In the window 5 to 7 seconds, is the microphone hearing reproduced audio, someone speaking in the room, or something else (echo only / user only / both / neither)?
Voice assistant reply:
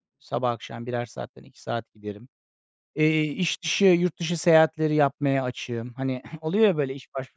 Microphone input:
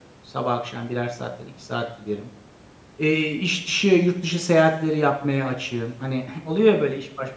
echo only